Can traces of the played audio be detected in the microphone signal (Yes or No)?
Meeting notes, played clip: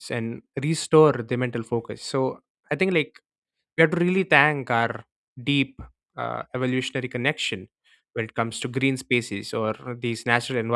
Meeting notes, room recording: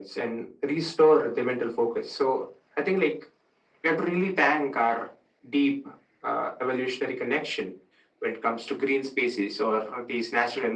Yes